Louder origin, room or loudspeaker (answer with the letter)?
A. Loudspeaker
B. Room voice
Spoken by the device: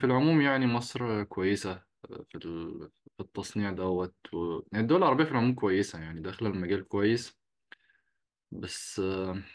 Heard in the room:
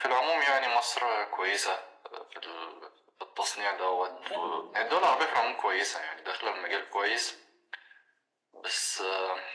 A